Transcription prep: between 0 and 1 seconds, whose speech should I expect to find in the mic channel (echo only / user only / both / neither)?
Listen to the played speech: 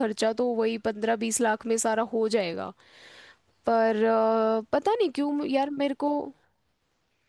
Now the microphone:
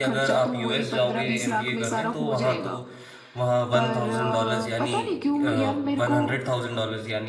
both